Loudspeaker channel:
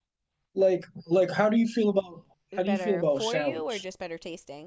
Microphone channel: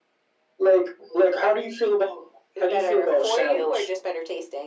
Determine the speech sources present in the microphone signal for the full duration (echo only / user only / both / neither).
echo only